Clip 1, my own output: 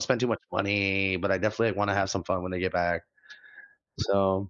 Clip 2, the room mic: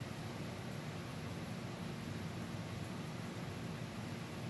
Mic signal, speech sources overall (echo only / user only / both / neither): neither